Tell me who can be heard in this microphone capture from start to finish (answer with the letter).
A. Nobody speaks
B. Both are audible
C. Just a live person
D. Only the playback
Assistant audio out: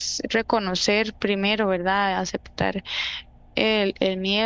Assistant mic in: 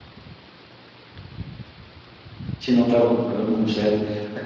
C